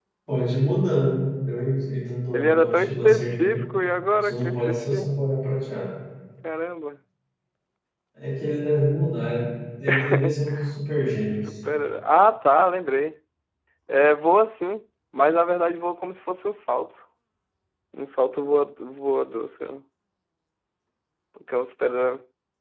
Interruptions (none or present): present